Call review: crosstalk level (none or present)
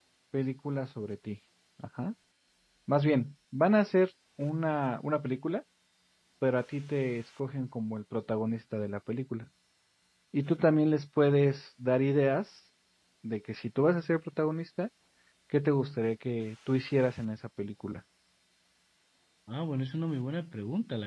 none